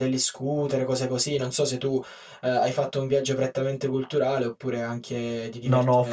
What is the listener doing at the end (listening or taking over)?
taking over